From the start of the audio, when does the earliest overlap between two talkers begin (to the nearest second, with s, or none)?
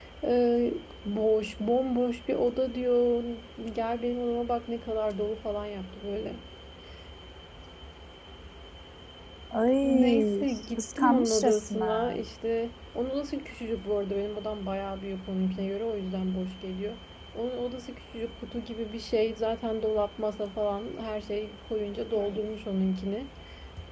10 s